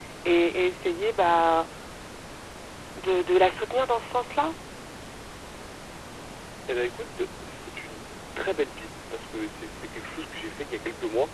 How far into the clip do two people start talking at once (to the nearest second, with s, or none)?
none